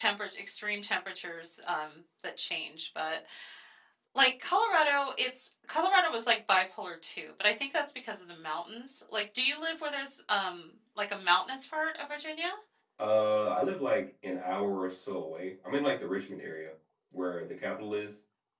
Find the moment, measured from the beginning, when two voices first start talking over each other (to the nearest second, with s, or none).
none